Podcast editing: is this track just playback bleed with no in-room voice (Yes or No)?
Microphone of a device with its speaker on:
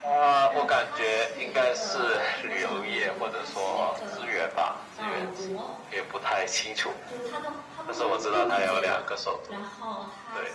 No